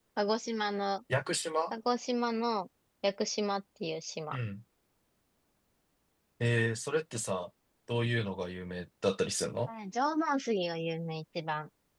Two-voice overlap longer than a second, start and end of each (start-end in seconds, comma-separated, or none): none